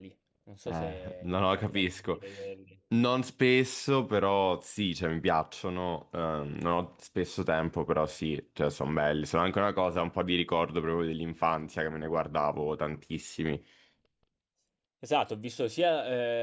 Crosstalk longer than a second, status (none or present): present